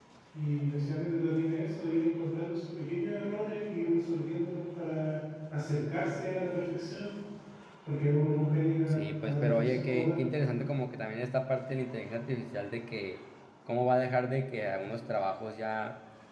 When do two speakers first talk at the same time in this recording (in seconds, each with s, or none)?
8.9 s